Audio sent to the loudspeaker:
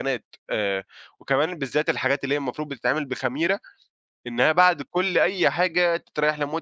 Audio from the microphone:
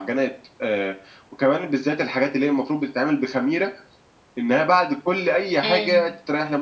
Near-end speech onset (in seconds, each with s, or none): 5.6 s